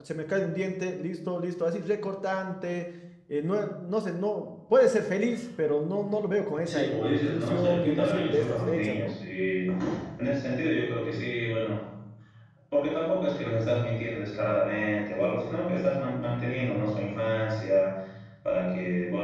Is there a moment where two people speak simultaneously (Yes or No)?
Yes